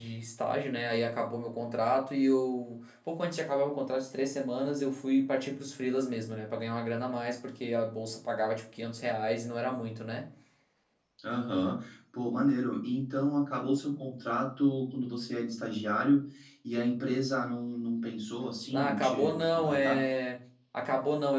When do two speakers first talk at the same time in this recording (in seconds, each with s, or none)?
18.7 s